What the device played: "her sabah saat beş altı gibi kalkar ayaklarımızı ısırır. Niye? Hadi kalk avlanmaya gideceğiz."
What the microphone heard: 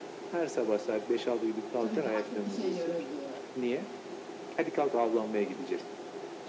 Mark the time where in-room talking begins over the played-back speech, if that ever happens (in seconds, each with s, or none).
1.8 s